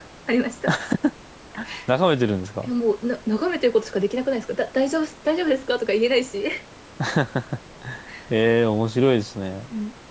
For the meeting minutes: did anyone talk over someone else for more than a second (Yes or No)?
No